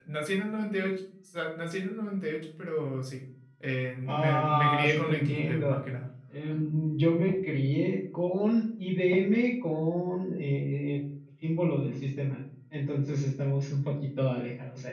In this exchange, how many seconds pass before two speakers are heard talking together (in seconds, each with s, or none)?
4.1 s